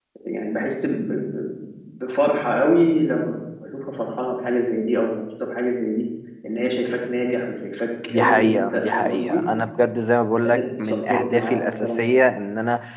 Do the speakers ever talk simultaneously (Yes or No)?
Yes